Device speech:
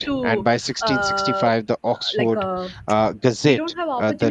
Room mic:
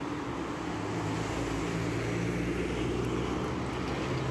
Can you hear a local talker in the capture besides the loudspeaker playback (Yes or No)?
No